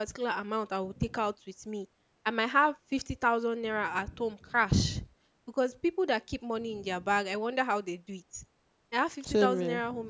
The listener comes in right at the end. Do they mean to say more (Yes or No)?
No